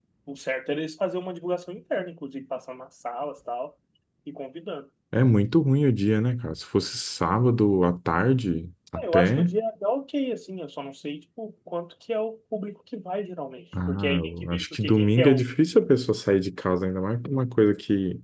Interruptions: present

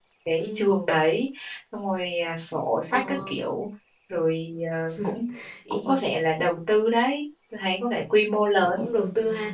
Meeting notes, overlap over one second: none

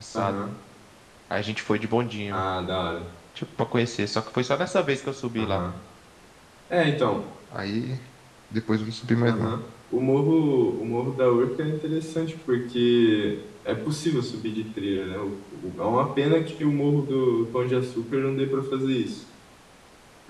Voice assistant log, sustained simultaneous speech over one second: none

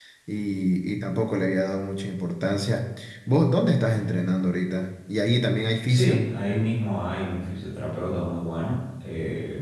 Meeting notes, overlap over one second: none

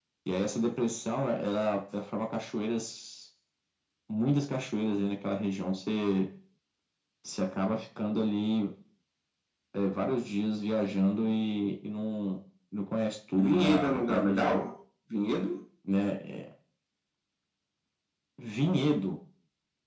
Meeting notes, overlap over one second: present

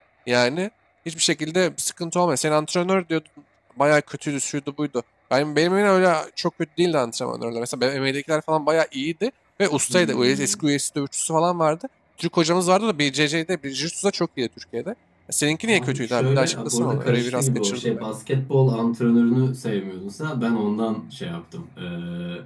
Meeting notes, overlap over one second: present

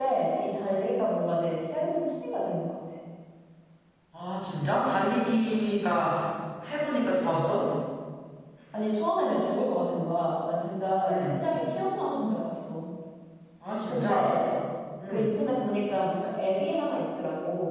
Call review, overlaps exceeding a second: none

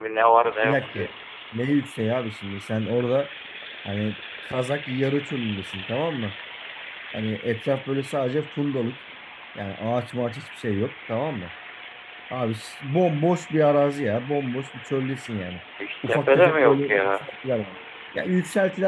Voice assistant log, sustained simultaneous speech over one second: present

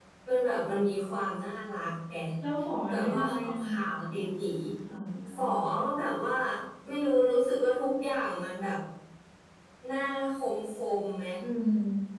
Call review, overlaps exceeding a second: present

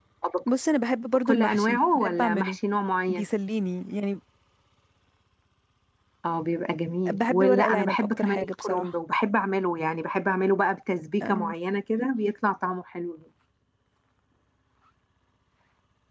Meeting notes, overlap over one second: present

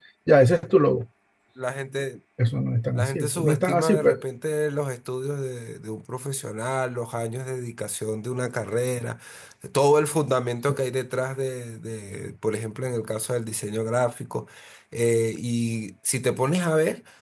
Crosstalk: present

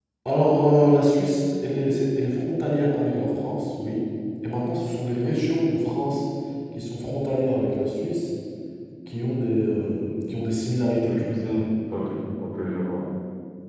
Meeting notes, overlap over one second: none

